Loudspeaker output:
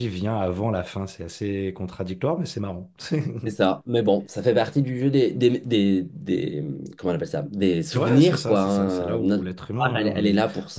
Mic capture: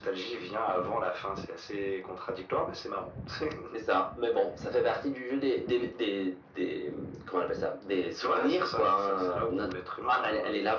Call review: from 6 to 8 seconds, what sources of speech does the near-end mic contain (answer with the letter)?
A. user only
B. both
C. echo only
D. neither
C